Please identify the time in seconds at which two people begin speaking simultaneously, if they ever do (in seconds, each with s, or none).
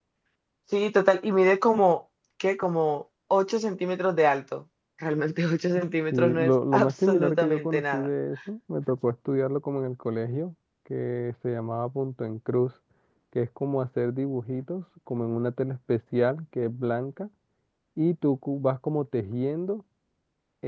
6.1 s